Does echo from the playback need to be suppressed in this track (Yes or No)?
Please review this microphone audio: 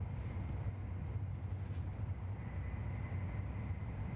No